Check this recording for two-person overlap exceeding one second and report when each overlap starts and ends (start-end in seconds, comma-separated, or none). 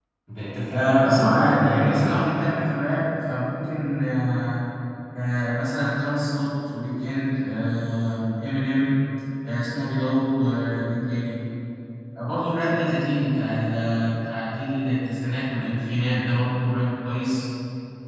0.7-2.2